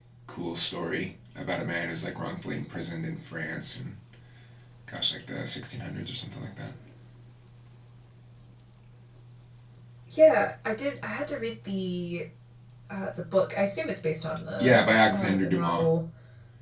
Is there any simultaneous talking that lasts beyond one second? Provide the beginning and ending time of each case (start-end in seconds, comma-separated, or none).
14.6-15.8